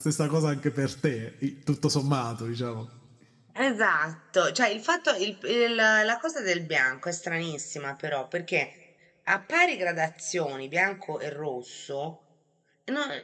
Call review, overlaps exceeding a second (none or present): none